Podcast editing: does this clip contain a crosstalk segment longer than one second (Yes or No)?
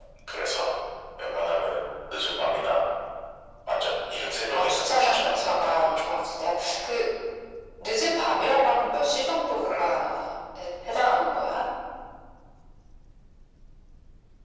Yes